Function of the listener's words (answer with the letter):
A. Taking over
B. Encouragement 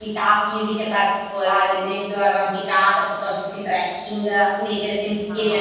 A